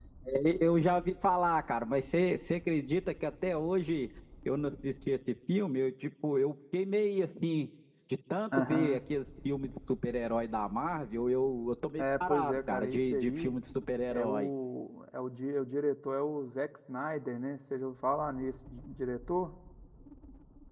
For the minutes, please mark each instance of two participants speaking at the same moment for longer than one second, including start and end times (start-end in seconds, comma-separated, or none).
12.0-13.5